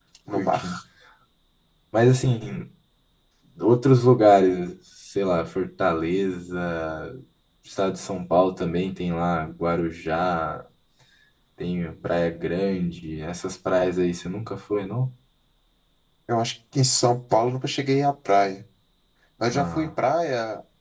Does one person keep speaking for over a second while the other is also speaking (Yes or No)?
No